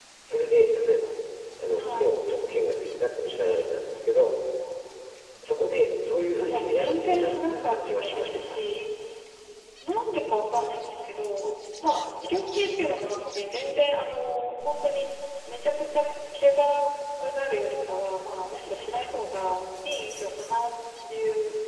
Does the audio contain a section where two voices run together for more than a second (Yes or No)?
Yes